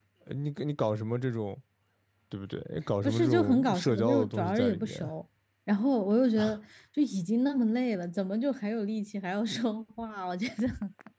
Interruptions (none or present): present